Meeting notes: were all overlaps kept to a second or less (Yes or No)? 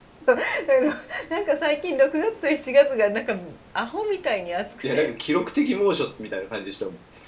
Yes